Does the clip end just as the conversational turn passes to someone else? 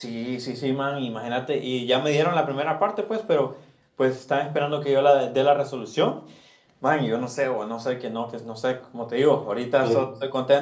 No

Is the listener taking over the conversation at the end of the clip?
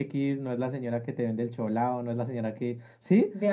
No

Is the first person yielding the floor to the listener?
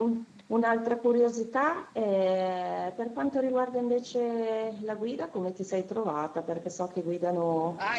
Yes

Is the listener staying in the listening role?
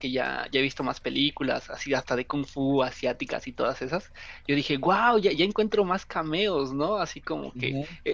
Yes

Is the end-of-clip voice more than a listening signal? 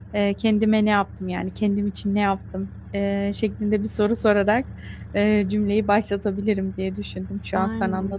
No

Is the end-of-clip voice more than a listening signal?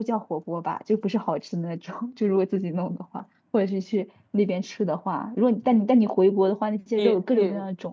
Yes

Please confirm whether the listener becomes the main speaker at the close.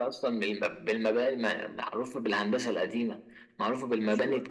No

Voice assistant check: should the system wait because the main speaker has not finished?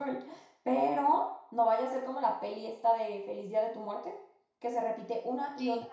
Yes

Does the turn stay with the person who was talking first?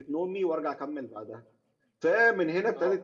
Yes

